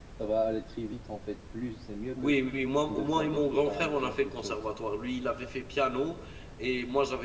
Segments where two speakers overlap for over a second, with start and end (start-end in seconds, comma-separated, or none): 2.9-4.6